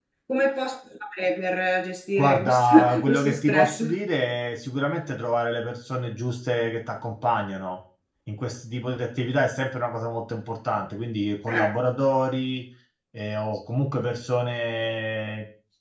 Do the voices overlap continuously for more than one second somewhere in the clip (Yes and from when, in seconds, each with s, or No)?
Yes, from 2.2 s